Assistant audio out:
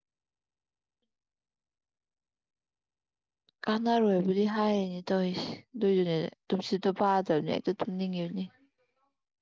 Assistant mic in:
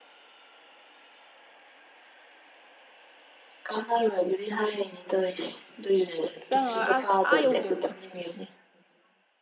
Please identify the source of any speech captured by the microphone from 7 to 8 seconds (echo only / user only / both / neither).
both